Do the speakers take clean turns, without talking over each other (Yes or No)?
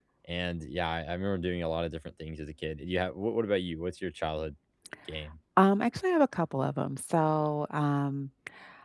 Yes